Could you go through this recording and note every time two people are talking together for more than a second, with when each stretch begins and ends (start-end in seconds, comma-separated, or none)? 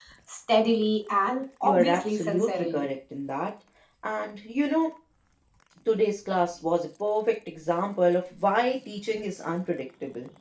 1.6-2.8